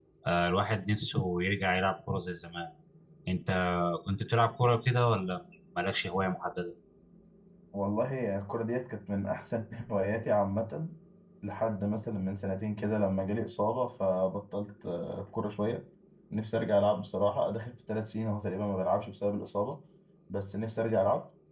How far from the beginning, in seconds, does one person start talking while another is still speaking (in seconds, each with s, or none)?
none